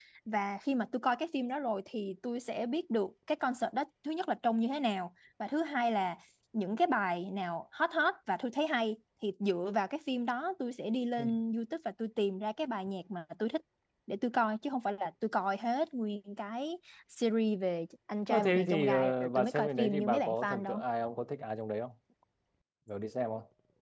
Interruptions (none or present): present